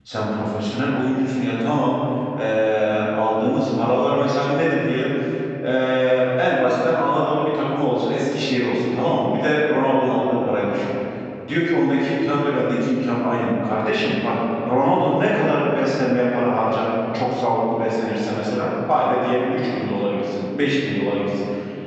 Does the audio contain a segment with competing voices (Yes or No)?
No